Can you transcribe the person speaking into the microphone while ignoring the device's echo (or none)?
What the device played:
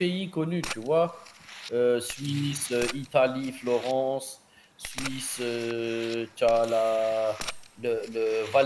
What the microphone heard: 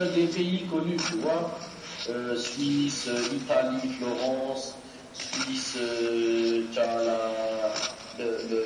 none